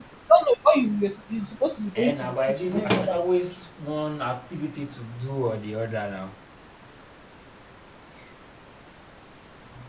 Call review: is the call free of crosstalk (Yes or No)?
No